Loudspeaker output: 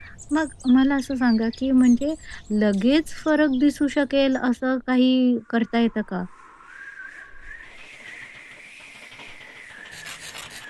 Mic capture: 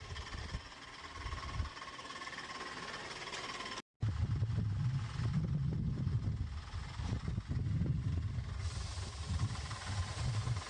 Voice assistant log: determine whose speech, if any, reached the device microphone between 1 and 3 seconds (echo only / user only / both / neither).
neither